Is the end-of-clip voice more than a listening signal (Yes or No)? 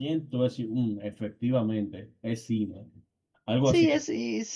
Yes